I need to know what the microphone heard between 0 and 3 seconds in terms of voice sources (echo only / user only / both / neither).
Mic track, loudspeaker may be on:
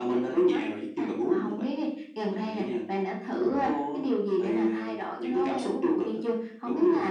echo only